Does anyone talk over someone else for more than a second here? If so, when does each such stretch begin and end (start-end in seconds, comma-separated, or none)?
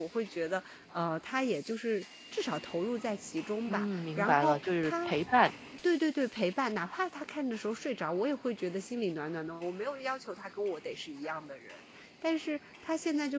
3.7-5.2